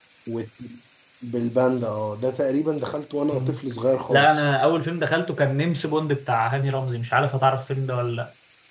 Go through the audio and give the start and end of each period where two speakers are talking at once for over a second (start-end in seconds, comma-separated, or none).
none